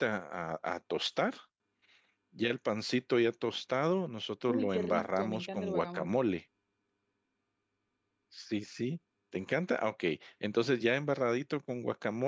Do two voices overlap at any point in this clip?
Yes, from 4.5 s

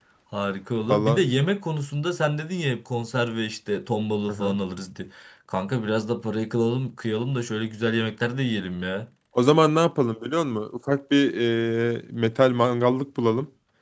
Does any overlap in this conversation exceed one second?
No

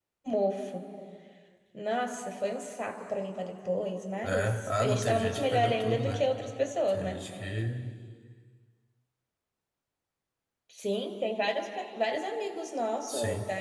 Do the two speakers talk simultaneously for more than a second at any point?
Yes, from 4.2 s

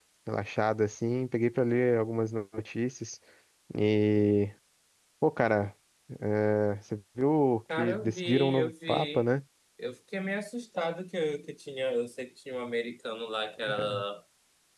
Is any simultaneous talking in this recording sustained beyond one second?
Yes, from 7.7 s

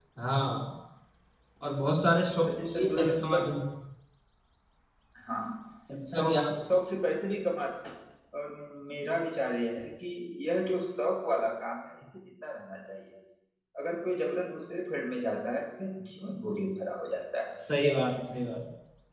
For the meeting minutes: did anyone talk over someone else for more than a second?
Yes, from 2.2 s

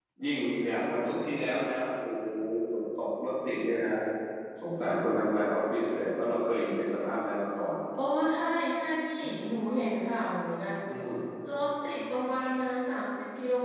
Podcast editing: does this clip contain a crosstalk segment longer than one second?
No

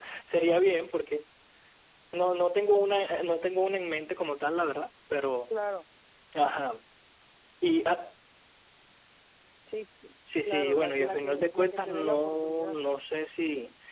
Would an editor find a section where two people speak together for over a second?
Yes, from 10.4 s

